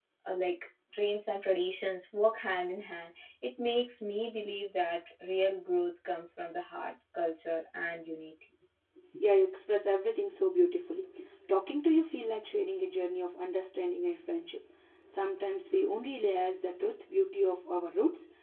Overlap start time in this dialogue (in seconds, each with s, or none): none